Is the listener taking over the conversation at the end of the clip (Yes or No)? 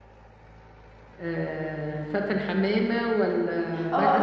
Yes